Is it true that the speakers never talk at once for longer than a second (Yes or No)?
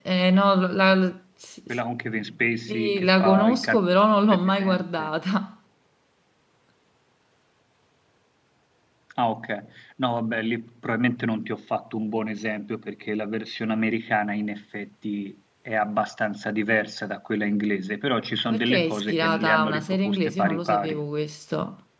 No